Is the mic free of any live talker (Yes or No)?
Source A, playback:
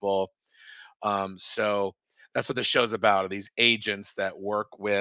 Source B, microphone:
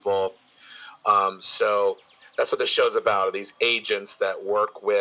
Yes